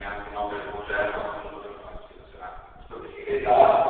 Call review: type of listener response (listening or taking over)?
taking over